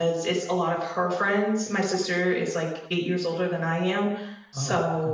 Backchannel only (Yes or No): Yes